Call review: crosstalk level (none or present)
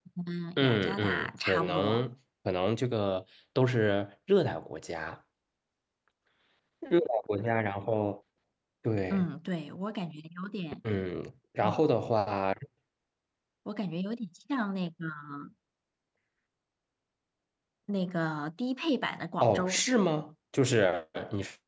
present